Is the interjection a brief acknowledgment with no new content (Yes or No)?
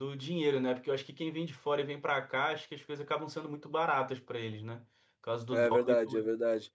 No